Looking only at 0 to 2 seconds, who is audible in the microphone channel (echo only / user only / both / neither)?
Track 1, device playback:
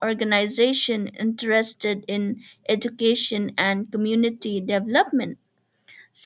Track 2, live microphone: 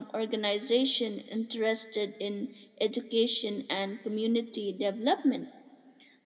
echo only